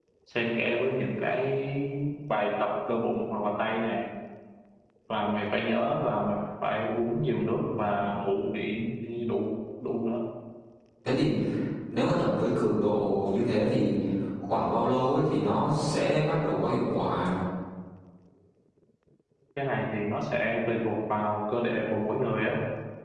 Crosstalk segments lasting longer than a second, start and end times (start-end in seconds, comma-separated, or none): none